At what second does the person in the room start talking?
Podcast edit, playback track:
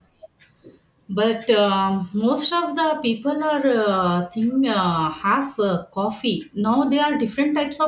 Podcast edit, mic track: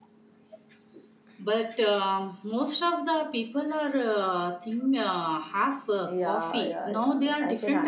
6.0 s

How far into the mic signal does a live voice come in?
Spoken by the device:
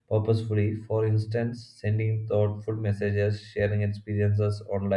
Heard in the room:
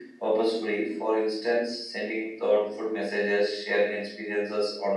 none

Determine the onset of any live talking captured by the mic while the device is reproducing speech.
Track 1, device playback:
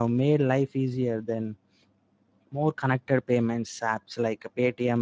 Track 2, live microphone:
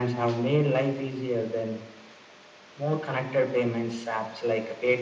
none

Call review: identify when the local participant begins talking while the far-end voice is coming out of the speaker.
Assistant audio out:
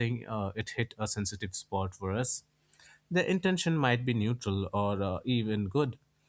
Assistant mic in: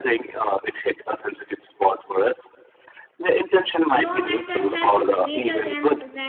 3.8 s

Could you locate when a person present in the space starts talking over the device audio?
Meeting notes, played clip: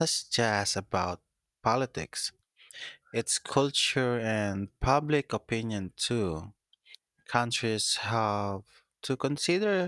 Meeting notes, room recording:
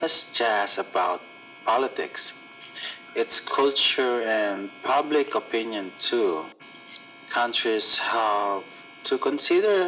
none

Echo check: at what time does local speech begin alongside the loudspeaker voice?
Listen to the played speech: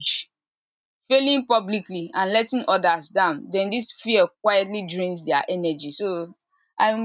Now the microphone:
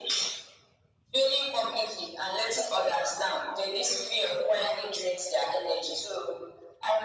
none

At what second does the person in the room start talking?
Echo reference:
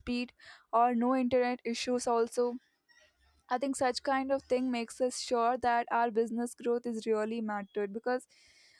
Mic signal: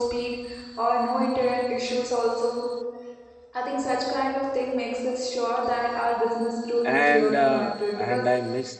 6.8 s

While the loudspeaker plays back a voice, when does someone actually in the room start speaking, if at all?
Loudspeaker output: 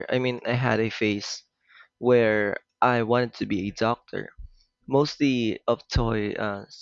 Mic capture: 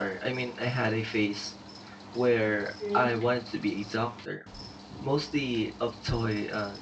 2.8 s

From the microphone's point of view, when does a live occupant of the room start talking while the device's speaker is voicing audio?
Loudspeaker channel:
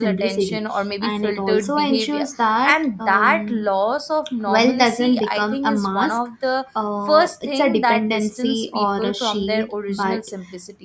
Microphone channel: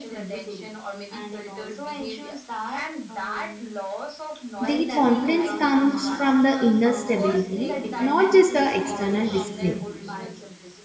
4.6 s

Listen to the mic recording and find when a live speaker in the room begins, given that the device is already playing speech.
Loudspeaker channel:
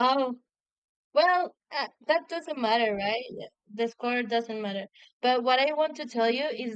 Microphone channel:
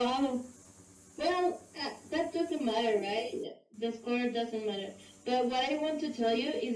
none

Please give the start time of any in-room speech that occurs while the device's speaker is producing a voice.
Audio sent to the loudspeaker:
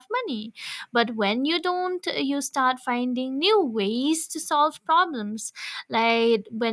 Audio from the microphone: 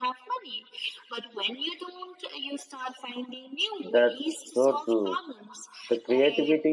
3.8 s

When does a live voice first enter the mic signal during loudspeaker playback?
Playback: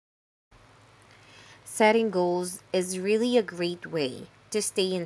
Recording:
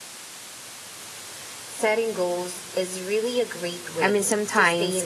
4.0 s

